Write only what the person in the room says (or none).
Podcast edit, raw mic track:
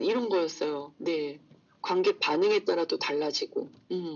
none